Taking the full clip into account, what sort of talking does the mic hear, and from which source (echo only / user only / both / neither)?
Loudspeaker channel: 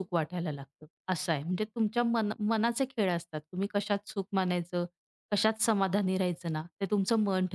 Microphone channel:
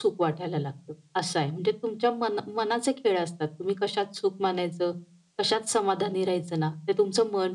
echo only